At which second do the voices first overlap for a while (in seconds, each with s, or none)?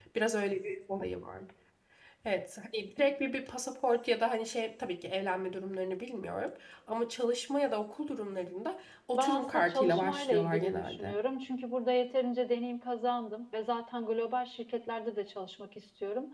9.1 s